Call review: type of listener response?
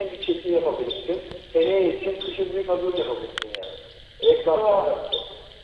listening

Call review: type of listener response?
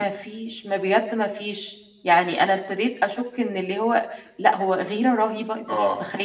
taking over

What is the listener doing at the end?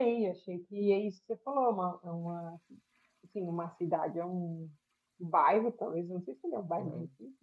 listening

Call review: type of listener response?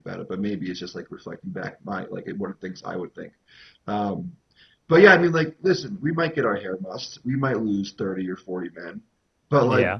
listening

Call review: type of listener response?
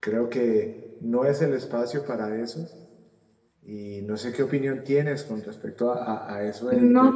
listening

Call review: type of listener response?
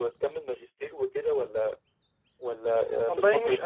taking over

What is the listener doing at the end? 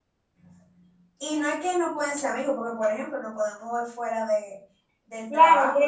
taking over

